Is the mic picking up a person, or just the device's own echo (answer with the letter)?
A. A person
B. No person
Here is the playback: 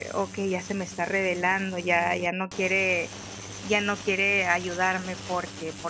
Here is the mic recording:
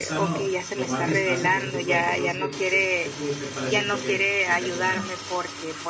A